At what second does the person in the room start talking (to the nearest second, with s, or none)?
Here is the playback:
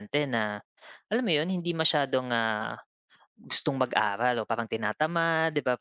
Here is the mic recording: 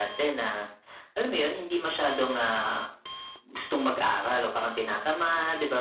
none